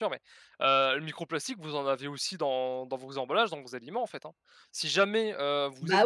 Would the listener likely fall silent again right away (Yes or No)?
No